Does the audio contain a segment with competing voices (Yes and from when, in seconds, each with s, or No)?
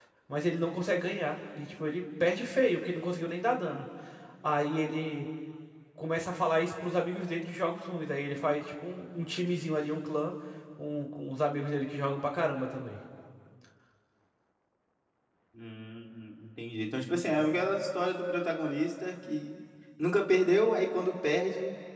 No